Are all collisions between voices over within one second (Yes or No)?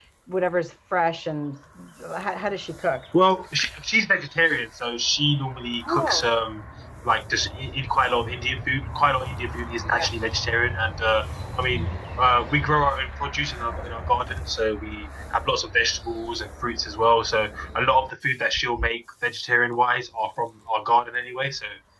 Yes